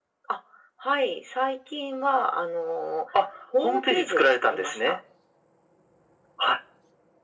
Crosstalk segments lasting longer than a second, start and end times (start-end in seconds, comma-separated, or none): 3.6-5.0